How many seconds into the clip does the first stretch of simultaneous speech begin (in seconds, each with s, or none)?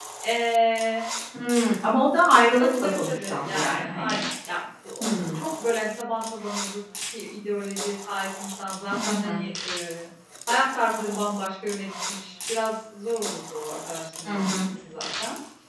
2.6 s